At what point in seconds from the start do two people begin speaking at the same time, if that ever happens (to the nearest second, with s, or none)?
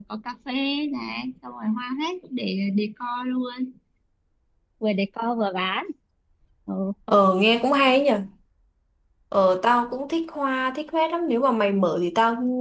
none